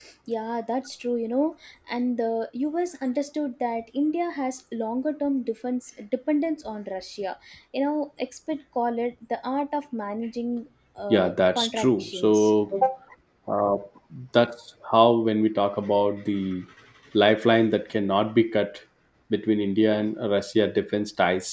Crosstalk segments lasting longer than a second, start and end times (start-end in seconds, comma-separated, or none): 11.1-12.5